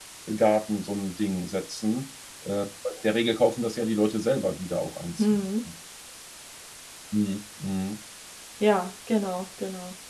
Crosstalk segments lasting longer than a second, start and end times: none

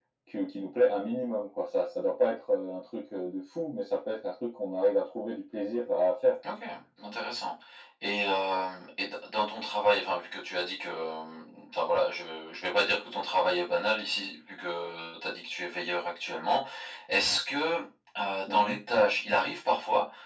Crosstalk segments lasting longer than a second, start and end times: none

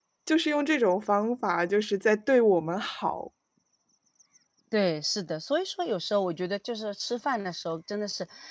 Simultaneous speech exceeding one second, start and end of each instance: none

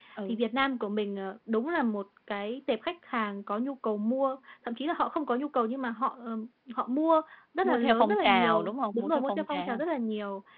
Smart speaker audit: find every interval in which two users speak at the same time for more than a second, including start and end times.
7.6-9.8

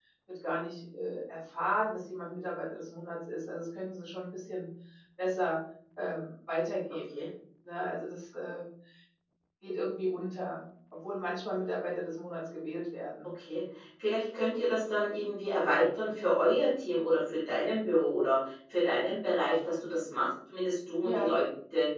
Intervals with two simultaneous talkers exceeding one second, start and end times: none

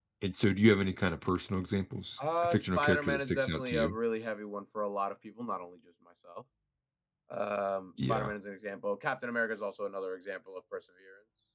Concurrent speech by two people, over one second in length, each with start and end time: 2.4-4.0

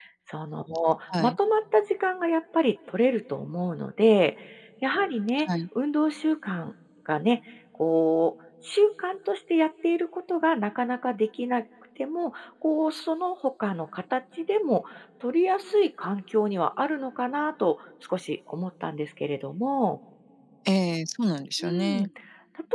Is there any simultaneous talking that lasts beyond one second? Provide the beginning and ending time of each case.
none

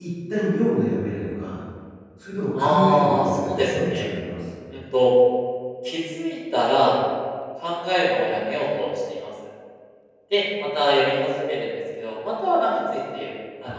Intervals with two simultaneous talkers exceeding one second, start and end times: 2.6-4.0

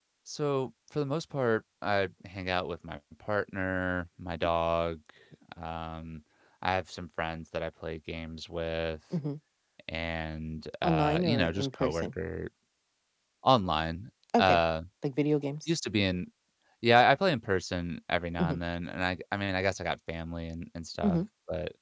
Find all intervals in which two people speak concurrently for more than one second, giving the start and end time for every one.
10.8-12.1

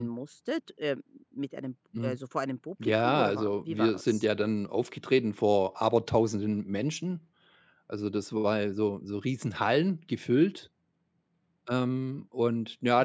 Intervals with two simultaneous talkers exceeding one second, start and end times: 2.8-4.2

